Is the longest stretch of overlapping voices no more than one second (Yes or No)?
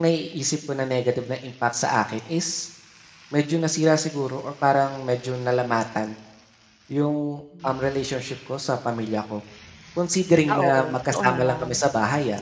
No